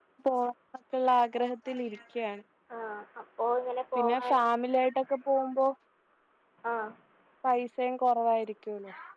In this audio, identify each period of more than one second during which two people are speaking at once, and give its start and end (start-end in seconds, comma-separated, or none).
none